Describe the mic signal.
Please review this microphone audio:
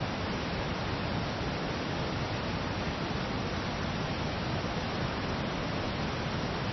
neither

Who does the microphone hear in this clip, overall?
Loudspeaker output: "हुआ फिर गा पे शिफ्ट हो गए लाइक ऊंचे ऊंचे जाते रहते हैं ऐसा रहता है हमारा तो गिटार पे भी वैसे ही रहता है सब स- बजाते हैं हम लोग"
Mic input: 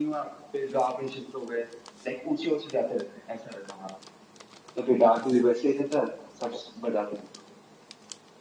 echo only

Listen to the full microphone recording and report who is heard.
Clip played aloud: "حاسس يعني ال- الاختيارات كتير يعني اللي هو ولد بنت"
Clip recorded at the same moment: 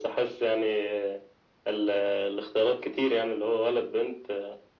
echo only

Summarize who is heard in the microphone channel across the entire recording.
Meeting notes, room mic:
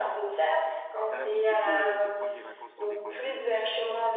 both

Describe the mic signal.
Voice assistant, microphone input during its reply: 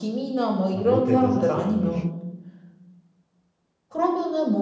both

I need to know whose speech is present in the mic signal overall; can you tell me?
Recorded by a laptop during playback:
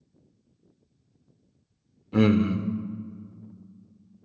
user only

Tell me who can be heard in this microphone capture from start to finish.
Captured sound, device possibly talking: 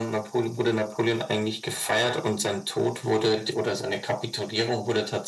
echo only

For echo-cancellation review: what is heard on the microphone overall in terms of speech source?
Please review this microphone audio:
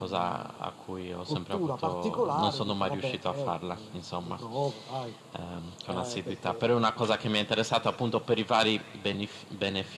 echo only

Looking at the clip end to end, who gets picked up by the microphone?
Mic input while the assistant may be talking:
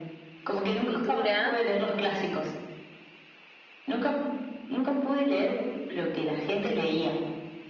both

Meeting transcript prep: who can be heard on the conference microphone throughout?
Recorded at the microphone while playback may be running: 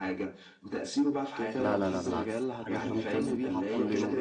both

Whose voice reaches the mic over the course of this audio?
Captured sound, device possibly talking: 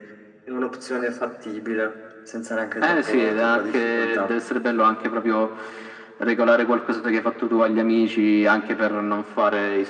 echo only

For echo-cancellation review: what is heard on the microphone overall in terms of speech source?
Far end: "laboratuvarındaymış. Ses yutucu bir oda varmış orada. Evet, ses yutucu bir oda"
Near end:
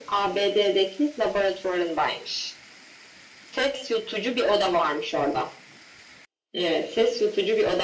echo only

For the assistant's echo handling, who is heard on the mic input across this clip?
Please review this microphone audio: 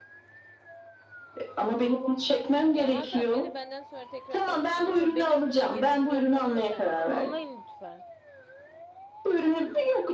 both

